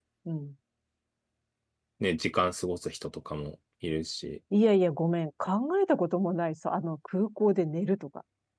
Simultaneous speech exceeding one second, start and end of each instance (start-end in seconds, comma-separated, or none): none